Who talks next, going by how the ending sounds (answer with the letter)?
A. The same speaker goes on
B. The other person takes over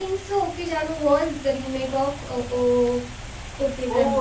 B